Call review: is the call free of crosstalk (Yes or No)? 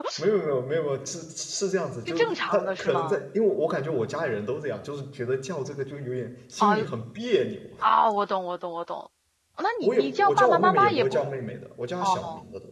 No